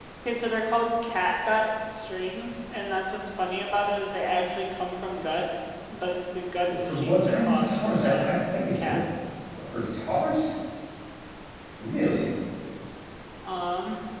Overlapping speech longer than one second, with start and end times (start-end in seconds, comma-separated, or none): 6.7-8.3